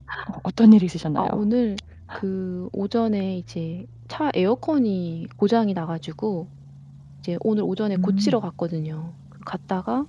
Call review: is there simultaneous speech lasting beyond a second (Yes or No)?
No